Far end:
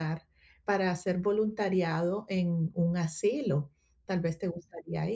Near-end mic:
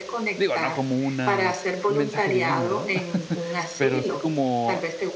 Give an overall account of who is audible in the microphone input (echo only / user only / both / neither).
both